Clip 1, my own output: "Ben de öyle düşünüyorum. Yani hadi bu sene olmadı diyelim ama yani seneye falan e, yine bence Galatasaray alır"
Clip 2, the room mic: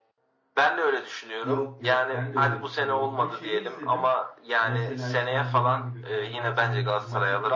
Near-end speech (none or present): present